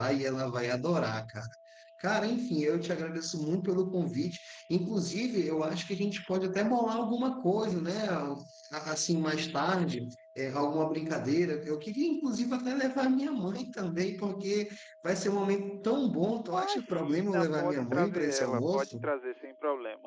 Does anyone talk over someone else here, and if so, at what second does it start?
16.4 s

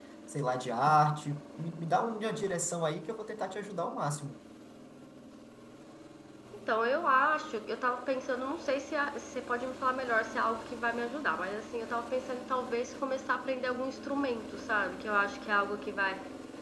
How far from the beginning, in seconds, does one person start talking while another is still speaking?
none

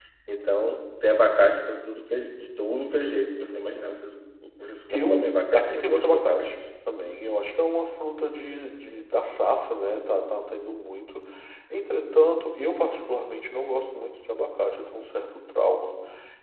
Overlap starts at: 4.9 s

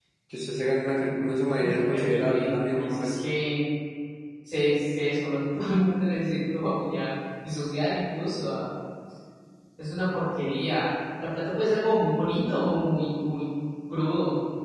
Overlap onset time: 1.9 s

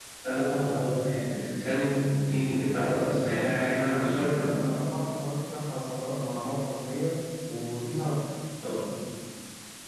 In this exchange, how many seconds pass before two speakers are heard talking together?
2.7 s

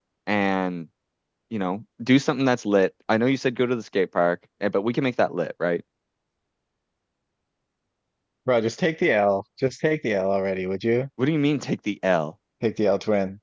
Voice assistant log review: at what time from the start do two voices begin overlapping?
none

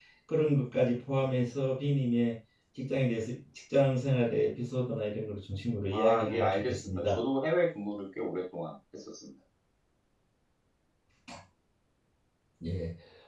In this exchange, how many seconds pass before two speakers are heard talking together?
5.9 s

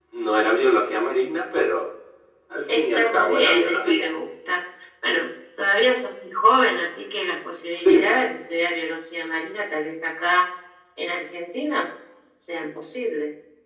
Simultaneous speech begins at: 2.8 s

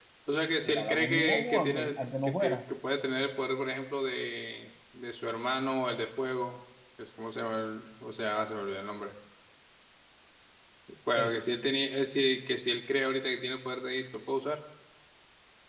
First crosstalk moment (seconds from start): 0.6 s

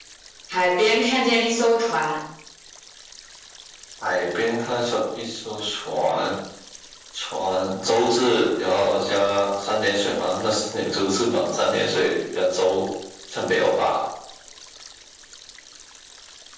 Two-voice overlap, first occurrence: none

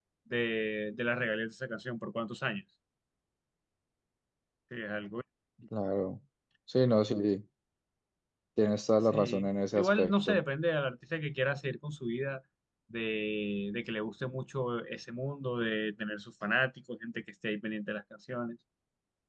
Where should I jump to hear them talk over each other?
9.0 s

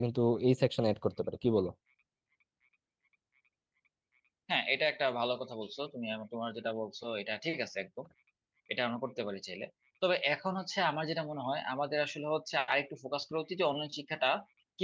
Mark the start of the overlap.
none

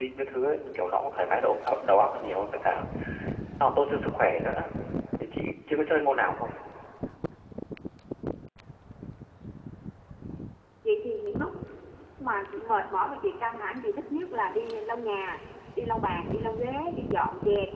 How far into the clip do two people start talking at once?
none

